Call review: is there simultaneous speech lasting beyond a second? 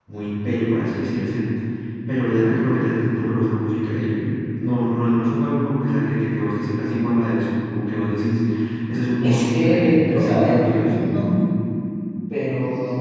Yes, from 9.2 s

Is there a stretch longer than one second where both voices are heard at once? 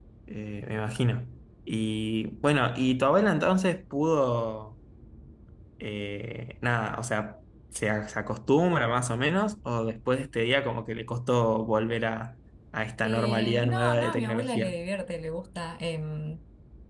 Yes, from 13.0 s

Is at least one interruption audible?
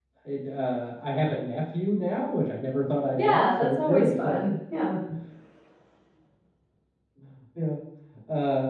Yes, from 3.2 s

